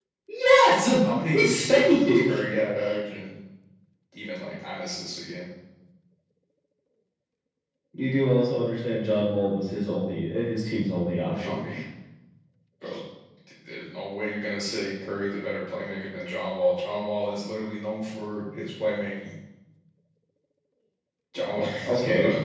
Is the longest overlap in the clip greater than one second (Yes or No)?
Yes